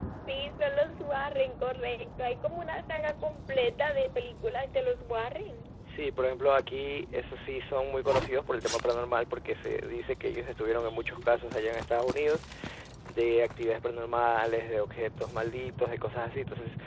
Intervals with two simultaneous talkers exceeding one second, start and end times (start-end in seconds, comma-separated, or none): none